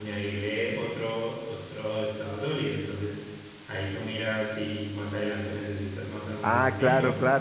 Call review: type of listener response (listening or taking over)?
taking over